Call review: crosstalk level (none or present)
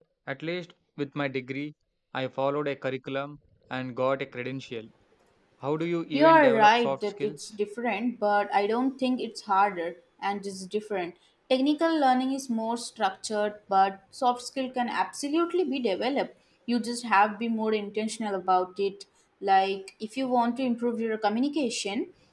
present